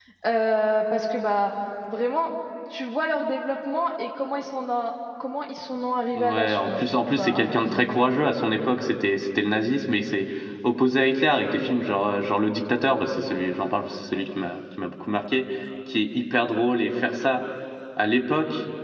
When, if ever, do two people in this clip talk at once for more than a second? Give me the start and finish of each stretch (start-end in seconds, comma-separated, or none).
6.2-8.0